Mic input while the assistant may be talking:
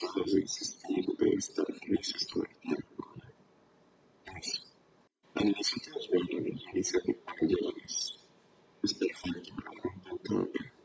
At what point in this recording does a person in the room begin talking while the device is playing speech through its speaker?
none

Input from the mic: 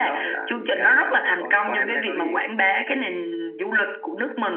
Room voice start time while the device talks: none

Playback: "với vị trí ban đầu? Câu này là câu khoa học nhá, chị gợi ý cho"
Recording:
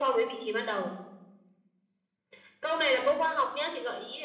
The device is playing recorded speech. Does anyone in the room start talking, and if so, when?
none

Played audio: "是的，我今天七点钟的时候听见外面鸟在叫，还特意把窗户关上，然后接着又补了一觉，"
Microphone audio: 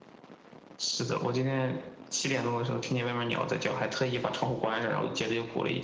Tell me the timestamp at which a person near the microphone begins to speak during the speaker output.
none

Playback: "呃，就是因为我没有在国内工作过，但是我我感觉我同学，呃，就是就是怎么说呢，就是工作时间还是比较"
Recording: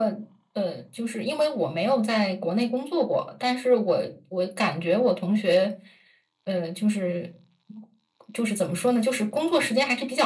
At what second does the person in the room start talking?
none

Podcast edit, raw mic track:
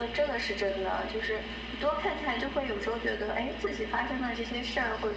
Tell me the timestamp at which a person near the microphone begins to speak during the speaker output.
none

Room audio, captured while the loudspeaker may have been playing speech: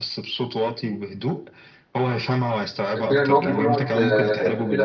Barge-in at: 3.0 s

